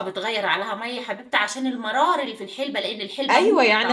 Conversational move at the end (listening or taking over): taking over